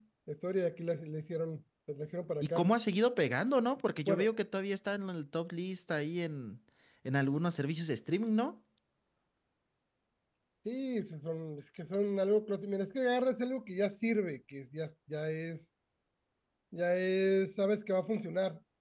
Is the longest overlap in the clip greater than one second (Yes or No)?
No